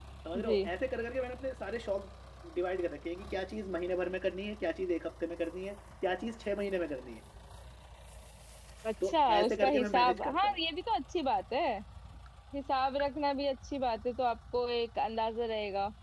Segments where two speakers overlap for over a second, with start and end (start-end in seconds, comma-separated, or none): 9.0-10.6